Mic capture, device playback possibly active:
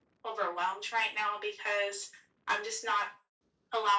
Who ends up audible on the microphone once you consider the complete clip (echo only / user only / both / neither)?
echo only